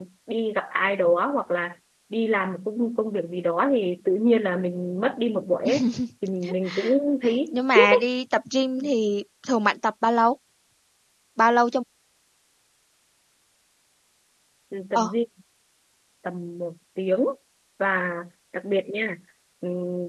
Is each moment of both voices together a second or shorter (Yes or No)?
Yes